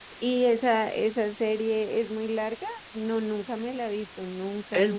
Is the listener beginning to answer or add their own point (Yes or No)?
Yes